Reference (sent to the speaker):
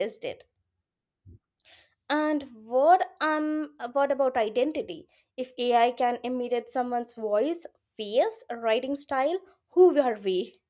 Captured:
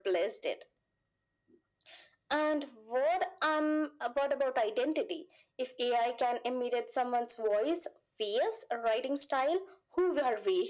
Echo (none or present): present